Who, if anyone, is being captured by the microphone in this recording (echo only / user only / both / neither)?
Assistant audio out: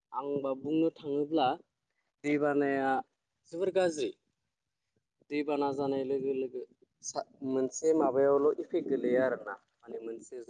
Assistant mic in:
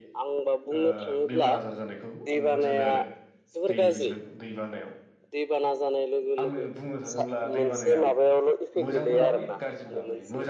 both